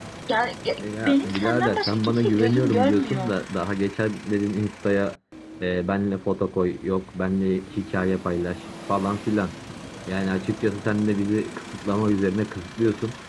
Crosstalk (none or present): present